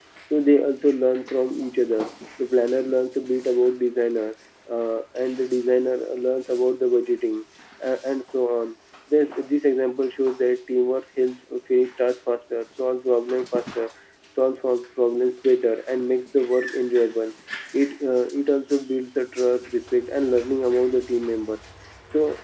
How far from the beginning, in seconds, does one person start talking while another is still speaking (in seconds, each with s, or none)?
none